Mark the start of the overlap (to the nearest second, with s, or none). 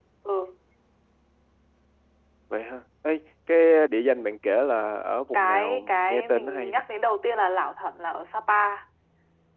5 s